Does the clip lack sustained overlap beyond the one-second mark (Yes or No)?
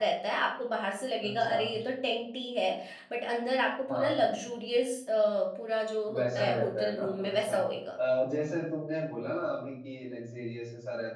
No